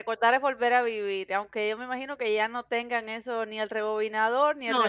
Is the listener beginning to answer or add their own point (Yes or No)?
No